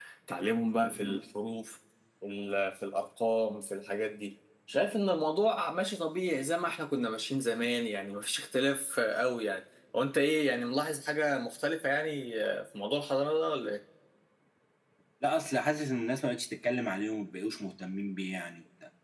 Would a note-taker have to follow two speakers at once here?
No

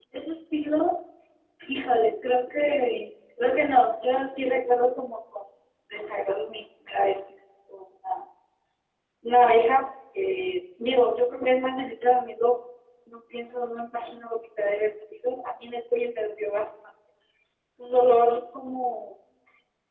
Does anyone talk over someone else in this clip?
No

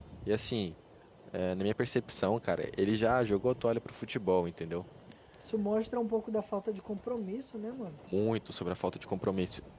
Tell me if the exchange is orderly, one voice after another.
Yes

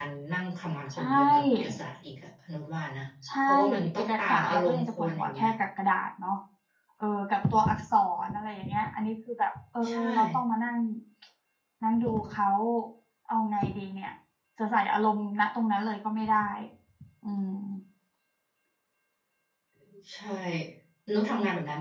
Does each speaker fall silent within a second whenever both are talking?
No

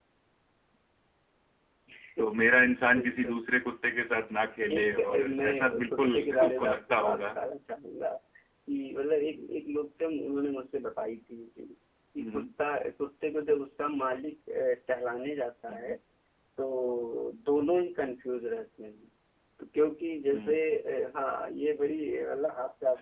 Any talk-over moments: Yes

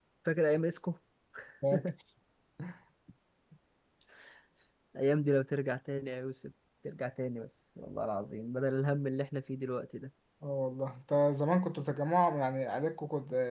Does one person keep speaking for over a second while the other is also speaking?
No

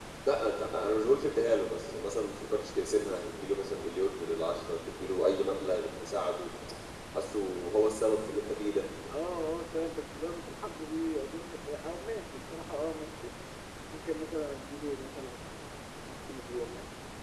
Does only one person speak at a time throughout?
Yes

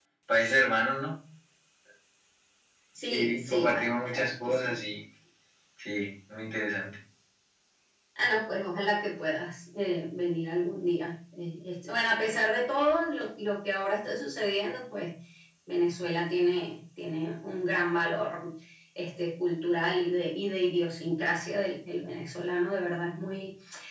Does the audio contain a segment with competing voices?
Yes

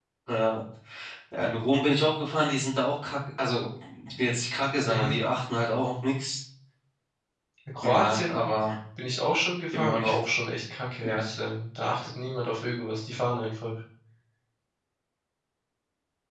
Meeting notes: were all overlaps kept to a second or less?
Yes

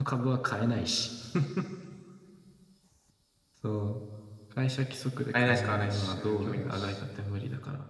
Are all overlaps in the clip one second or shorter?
No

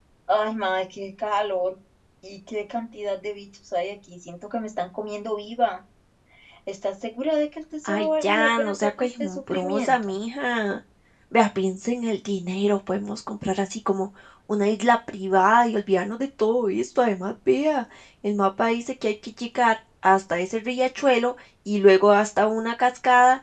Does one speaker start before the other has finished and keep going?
Yes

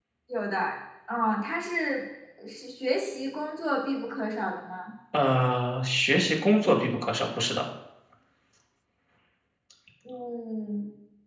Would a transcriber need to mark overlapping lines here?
No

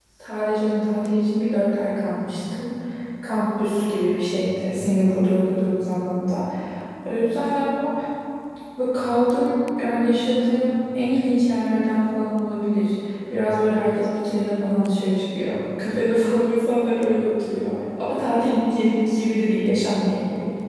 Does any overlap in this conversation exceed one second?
No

